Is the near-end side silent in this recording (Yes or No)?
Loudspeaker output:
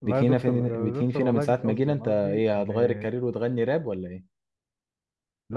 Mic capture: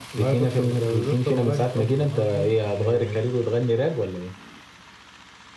Yes